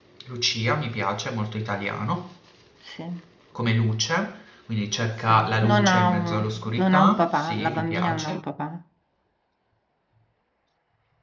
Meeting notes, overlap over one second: present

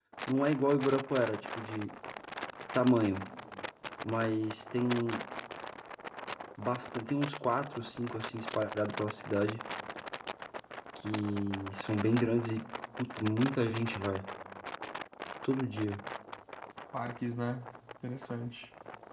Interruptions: none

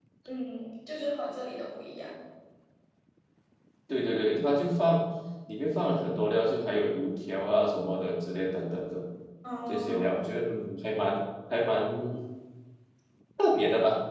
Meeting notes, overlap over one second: none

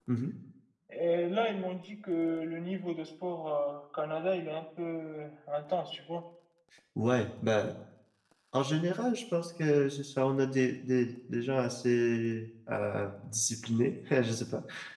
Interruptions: none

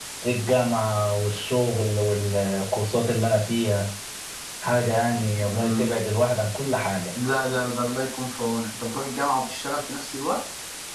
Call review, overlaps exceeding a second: none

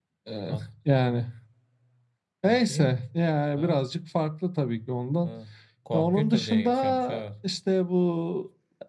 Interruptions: present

